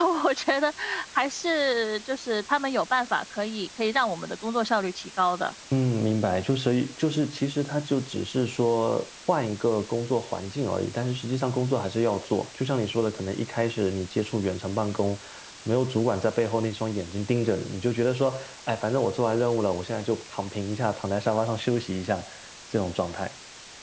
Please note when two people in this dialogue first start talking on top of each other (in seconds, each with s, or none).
none